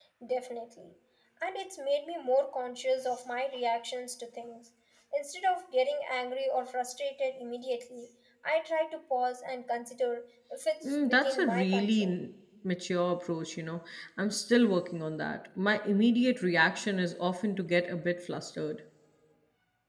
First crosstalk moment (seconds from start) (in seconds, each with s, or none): 10.8 s